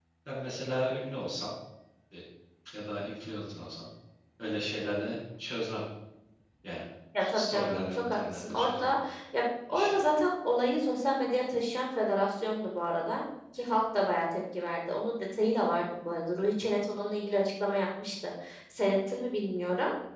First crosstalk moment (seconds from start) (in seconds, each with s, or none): 7.2 s